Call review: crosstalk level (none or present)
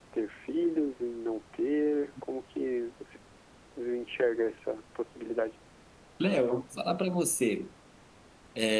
none